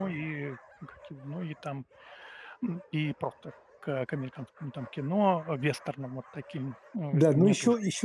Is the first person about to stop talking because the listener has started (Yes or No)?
Yes